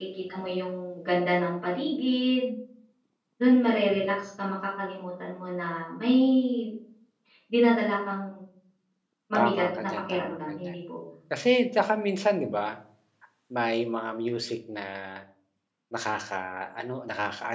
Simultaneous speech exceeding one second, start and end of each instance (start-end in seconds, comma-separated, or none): 9.4-10.7